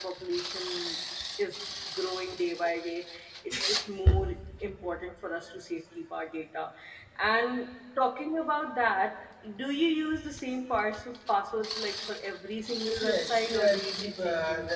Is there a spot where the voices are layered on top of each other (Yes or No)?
Yes